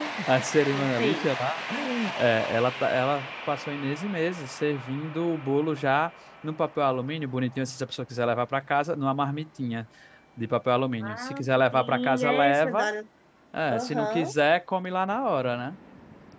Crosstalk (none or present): present